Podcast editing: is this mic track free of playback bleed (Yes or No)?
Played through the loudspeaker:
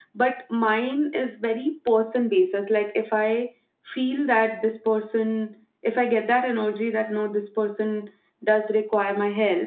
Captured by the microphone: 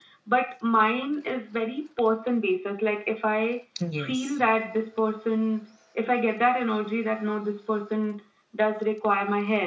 No